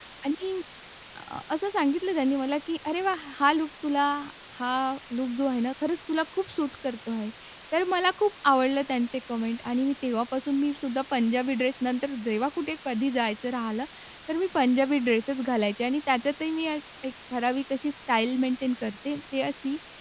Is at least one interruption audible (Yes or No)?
No